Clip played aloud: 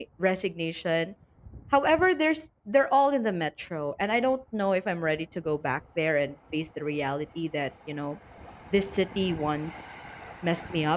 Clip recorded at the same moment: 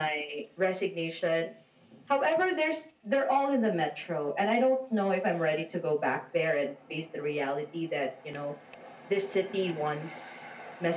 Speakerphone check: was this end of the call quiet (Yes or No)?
Yes